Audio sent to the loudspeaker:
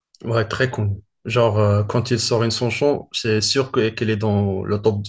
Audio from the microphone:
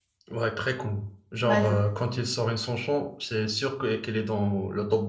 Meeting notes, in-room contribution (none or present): present